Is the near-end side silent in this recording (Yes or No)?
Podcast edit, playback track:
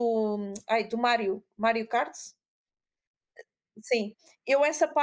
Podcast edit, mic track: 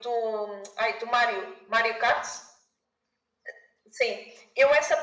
Yes